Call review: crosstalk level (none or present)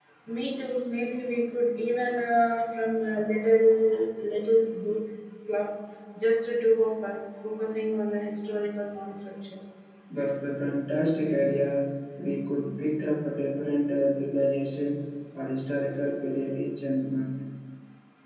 none